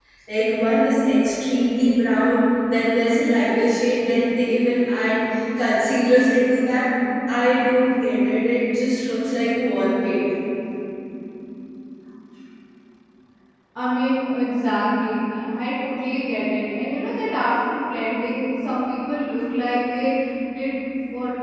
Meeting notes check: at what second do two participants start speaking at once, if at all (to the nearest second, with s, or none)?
none